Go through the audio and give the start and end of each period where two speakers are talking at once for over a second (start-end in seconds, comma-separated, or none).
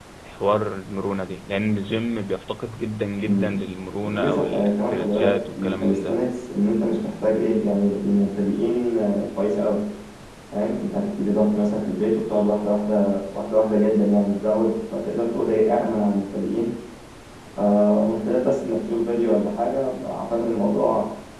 4.0-6.2